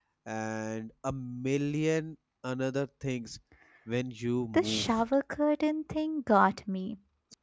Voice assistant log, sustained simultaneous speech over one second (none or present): none